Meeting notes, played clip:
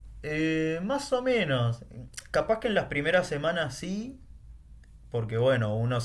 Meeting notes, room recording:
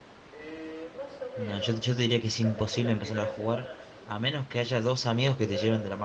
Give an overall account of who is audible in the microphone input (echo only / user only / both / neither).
both